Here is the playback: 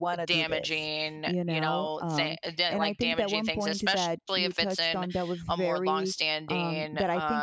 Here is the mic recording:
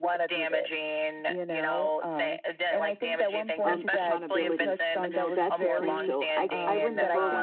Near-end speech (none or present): present